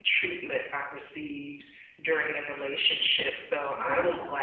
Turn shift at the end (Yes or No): No